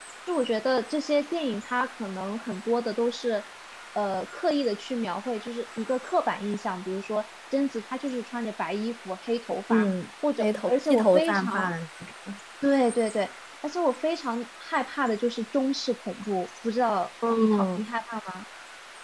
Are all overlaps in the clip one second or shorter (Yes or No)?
No